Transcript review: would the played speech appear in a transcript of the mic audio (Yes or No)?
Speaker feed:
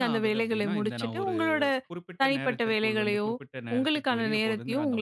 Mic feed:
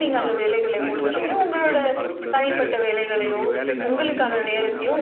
Yes